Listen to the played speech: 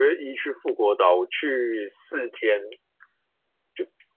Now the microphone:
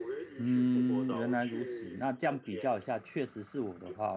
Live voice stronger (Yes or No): Yes